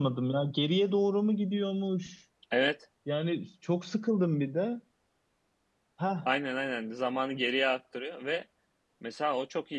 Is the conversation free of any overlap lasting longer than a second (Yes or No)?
Yes